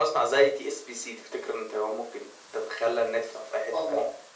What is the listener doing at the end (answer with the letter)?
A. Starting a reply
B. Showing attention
A